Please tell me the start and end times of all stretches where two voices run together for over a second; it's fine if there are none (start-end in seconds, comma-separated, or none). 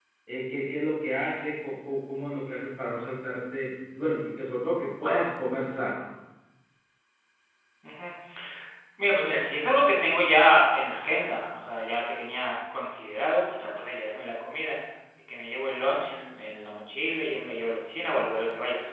none